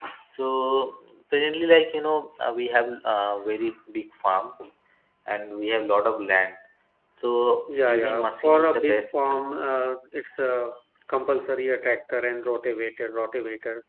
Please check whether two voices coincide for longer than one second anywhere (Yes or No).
Yes